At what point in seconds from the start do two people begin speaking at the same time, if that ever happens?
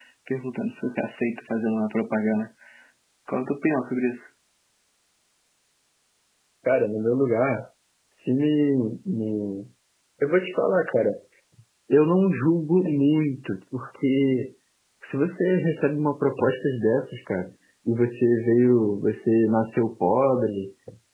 none

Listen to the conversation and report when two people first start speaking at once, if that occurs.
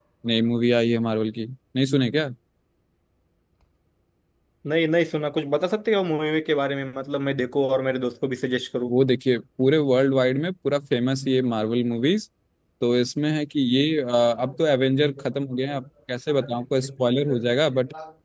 none

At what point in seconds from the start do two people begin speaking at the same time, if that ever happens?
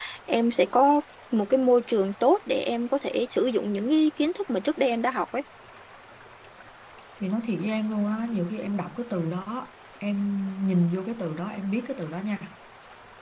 none

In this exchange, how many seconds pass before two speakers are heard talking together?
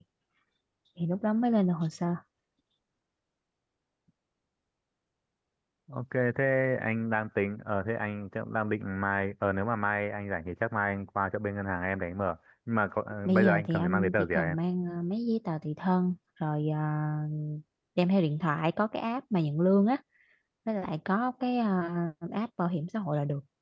13.2 s

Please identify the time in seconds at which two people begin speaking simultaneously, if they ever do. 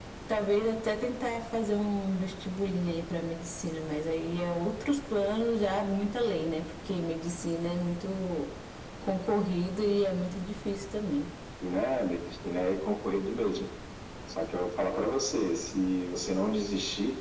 none

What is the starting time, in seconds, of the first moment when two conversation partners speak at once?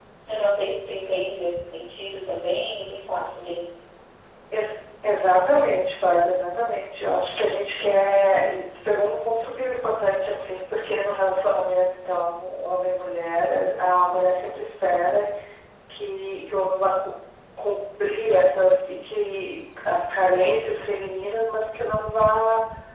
none

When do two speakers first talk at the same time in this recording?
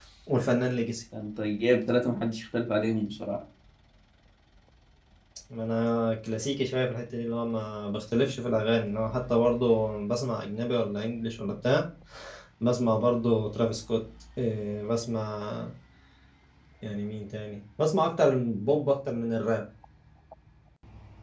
none

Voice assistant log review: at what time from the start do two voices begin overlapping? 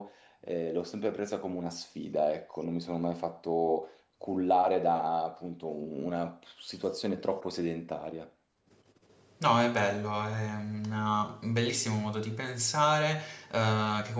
none

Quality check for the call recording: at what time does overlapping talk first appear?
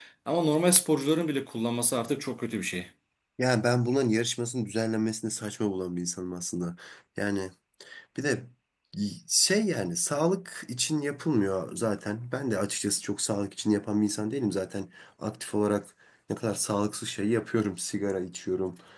none

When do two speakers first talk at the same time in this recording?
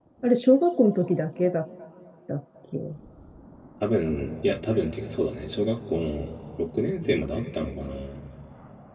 none

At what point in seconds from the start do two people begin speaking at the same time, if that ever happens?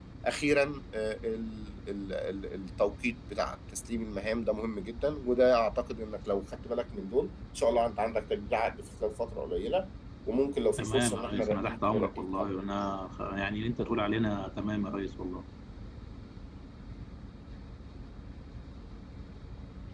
10.8 s

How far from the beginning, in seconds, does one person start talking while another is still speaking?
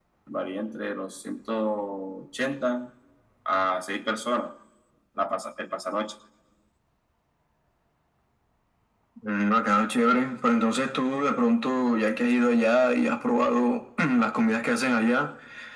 none

